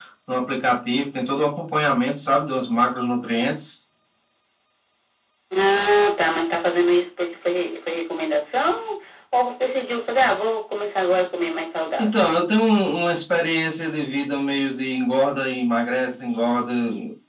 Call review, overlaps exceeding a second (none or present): none